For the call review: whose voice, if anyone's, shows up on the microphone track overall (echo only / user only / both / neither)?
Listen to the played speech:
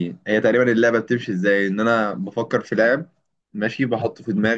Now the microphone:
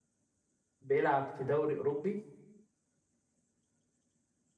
user only